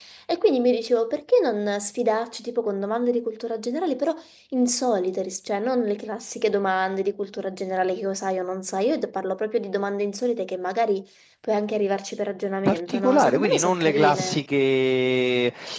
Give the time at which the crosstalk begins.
13 s

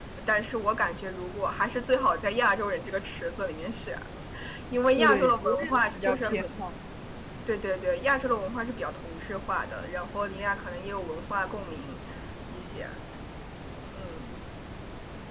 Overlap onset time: 5 s

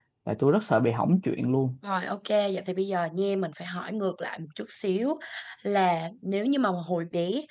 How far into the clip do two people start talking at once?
none

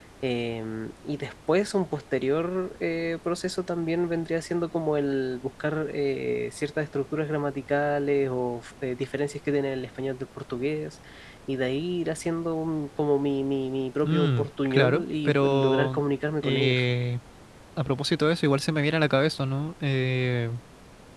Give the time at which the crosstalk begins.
14 s

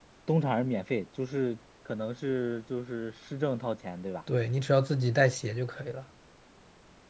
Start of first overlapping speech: none

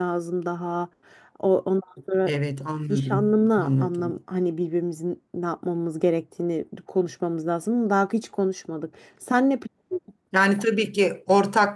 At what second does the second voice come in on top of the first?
3 s

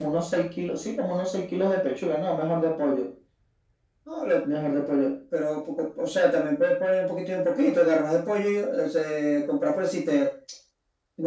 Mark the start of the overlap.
none

